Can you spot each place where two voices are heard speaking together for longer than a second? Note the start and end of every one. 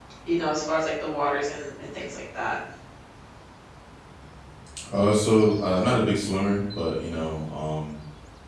none

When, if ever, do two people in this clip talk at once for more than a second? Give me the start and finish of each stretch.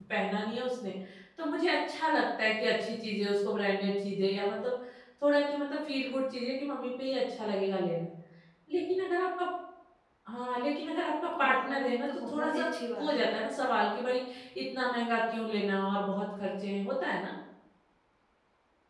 11.4-13.3

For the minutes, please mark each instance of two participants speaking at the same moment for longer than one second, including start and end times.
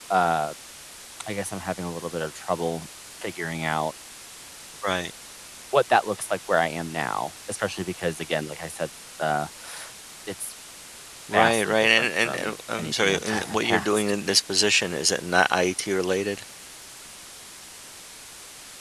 11.3-14.1

